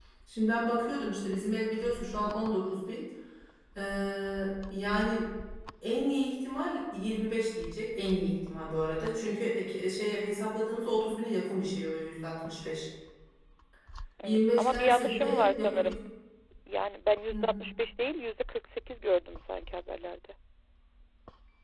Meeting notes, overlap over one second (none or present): present